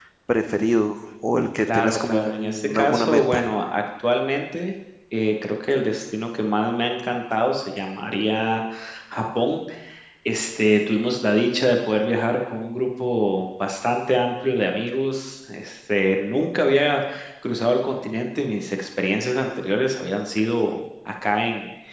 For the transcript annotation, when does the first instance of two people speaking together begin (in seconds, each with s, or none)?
1.7 s